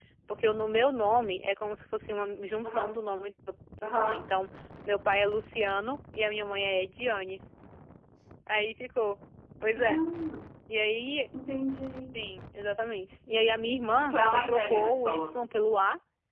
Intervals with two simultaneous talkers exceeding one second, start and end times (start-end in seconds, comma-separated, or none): 14.0-15.3